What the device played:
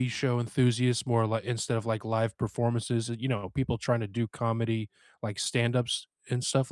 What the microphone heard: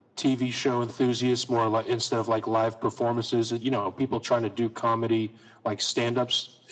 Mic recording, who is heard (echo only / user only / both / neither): echo only